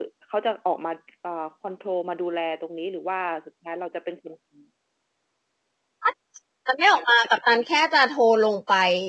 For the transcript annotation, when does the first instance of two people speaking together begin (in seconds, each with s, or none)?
none